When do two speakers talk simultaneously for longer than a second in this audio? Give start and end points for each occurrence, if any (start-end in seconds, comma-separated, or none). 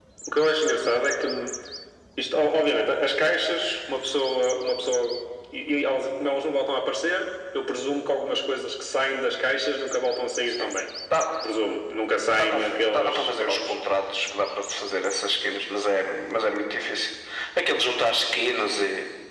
12.4-13.8